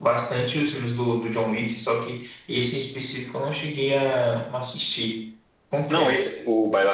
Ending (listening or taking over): taking over